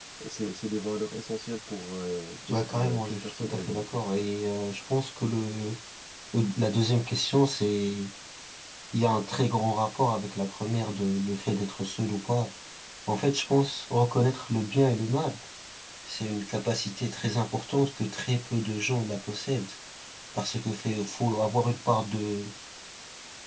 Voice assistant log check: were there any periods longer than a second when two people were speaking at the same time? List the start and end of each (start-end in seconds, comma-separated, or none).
2.5-3.9